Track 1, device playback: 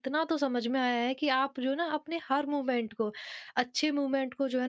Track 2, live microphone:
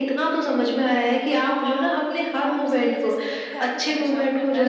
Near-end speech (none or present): present